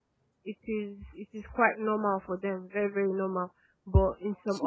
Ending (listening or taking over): taking over